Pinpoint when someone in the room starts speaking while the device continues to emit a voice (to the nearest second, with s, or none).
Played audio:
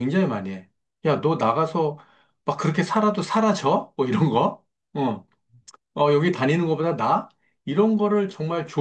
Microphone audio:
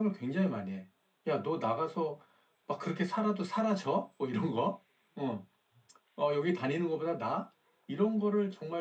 none